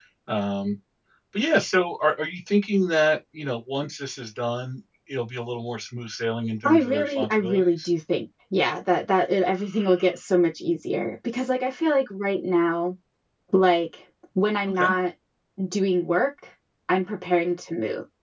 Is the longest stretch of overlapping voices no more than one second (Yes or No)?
No